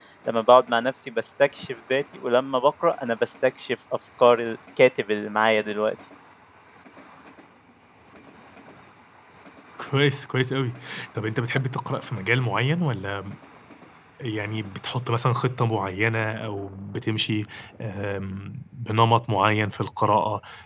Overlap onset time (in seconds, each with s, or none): none